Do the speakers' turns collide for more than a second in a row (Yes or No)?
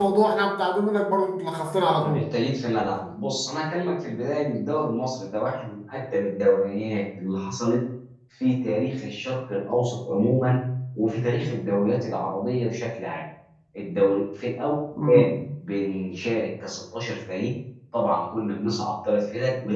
No